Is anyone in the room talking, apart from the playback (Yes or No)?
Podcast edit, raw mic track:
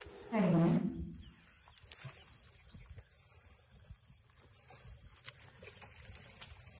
Yes